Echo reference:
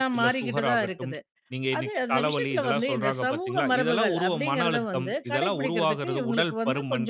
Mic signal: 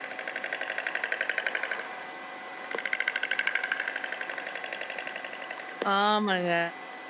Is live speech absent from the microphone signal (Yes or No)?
No